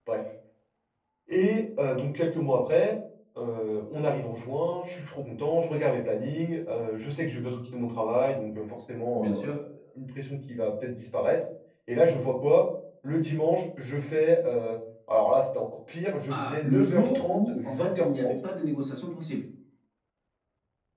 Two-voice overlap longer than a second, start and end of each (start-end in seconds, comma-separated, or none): 16.3-18.3